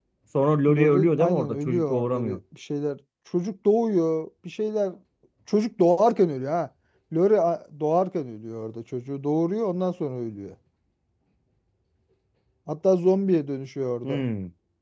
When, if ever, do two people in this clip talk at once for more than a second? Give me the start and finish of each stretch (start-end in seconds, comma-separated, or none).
0.7-2.4